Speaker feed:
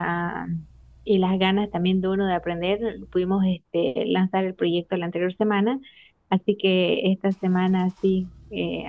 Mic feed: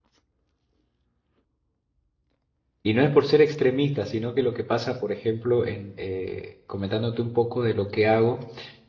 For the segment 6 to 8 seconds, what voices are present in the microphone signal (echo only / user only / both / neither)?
user only